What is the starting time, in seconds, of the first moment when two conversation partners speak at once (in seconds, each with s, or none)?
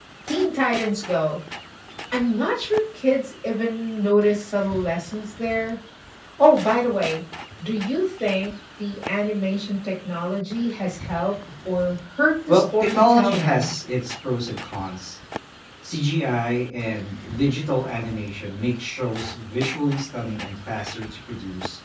12.5 s